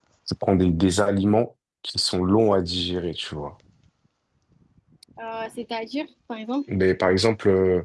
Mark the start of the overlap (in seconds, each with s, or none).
none